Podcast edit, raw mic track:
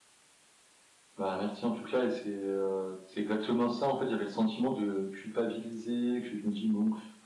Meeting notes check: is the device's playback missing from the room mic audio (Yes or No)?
Yes